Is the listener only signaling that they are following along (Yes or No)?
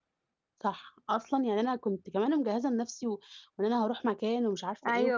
Yes